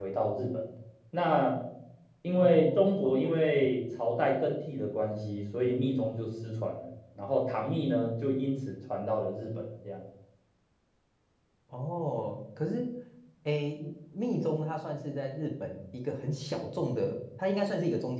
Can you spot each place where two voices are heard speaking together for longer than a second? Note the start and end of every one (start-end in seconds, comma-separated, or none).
2.4-3.7